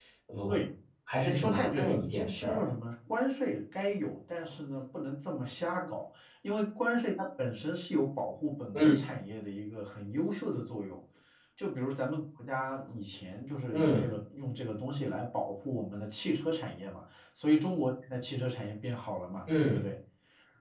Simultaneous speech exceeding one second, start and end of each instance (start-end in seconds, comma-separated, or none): 1.2-2.6